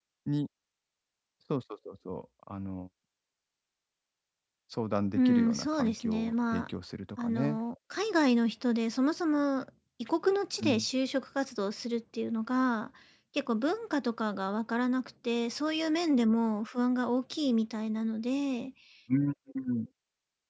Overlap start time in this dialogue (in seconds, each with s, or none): 5.2 s